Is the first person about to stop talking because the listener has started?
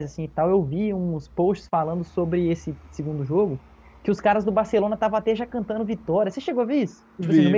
Yes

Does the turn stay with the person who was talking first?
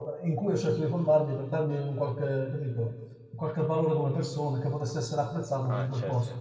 No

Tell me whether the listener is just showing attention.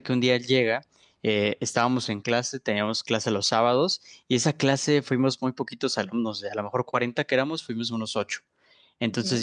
Yes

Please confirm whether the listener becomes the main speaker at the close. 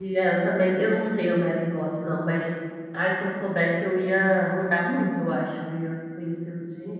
Yes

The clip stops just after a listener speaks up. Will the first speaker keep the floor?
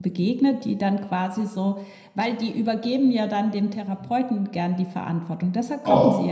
No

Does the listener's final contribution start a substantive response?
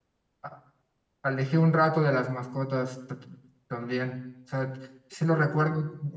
No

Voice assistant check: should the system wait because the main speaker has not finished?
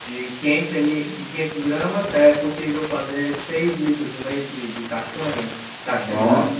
Yes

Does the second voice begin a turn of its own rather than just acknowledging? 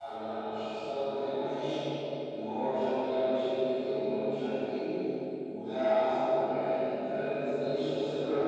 No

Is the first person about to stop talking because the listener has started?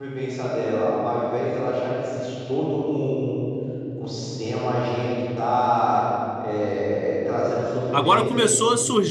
Yes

